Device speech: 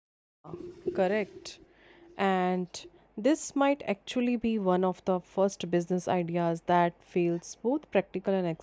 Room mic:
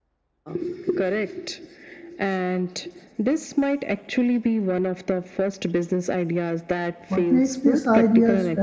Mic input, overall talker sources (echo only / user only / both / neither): both